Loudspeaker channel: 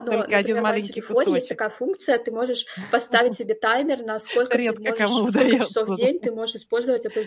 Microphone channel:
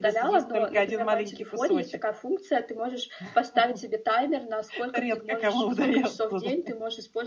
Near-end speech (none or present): none